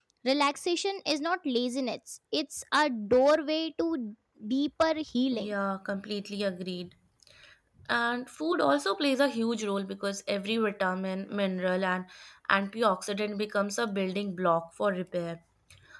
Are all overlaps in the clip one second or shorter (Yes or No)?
Yes